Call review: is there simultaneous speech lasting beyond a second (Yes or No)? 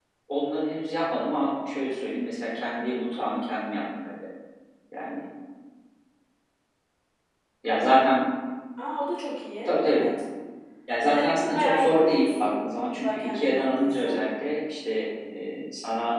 Yes